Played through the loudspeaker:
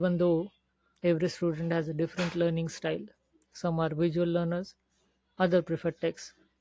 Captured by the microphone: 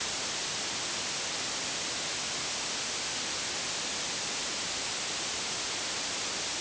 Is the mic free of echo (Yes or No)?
Yes